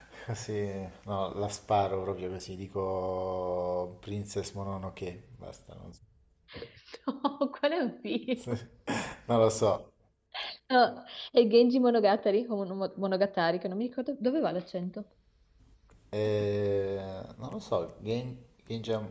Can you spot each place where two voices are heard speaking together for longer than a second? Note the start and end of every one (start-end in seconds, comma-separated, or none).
none